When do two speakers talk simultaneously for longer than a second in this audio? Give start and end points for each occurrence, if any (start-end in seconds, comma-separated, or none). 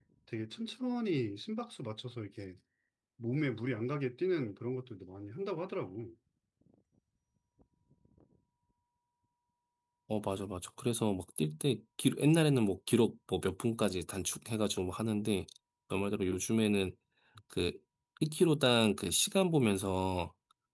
none